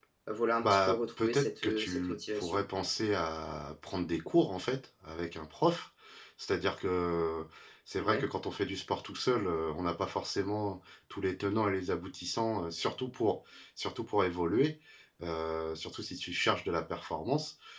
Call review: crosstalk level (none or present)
present